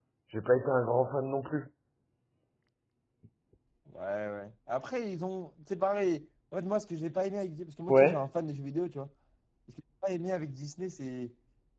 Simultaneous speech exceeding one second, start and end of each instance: none

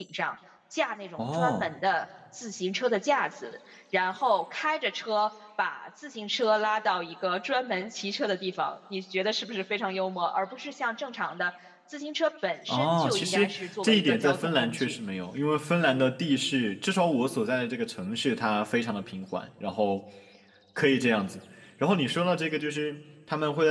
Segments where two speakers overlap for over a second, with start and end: 12.7-15.0

